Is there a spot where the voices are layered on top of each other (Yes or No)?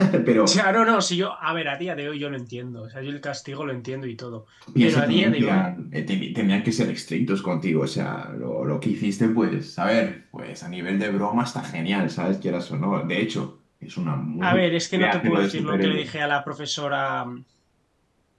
Yes